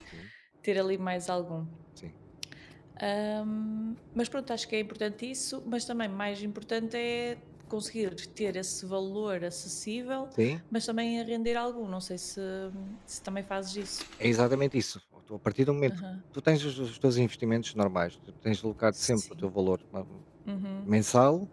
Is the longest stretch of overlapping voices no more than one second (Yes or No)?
Yes